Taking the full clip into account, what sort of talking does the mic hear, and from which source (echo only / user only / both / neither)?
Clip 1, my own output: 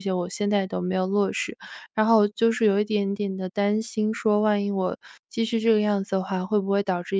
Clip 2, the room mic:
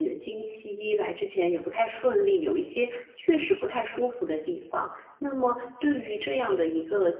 user only